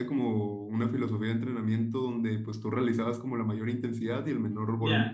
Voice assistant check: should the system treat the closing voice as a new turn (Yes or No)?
Yes